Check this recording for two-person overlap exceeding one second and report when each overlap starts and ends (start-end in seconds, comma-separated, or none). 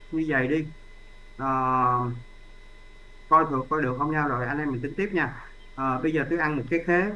none